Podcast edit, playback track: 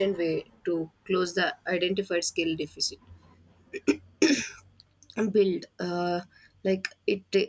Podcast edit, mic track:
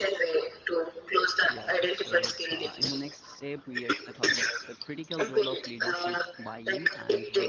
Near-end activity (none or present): present